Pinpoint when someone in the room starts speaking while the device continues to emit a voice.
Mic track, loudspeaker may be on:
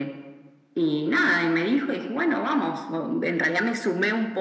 none

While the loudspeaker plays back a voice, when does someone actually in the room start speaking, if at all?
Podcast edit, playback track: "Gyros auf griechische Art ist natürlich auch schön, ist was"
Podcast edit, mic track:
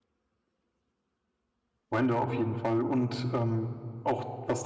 1.9 s

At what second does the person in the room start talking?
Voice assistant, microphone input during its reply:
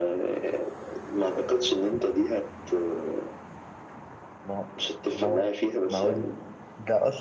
4.5 s

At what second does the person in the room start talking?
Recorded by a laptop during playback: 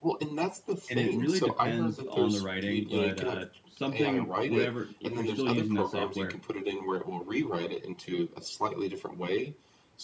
0.9 s

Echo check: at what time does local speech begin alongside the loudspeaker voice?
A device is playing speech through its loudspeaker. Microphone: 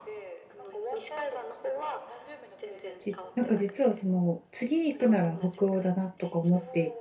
3.0 s

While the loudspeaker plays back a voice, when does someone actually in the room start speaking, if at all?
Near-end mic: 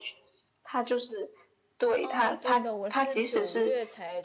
2.0 s

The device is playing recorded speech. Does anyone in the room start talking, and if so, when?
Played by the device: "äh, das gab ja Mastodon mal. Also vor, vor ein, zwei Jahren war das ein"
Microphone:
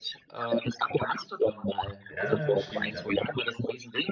2.1 s

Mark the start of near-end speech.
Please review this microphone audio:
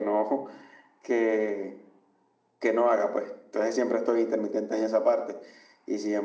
none

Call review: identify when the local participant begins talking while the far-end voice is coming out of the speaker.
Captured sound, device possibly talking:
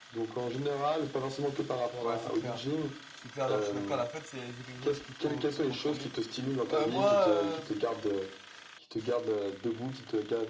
2.0 s

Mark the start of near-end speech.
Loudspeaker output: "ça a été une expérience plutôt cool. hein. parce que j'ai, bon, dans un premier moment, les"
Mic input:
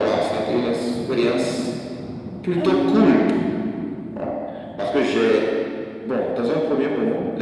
2.6 s

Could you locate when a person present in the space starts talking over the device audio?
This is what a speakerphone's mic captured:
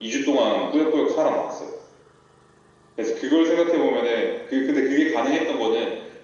none

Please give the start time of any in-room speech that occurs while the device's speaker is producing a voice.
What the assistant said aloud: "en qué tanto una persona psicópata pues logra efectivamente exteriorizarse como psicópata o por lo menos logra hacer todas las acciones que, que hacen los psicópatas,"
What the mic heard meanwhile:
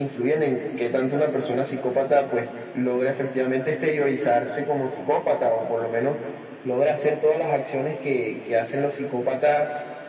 none

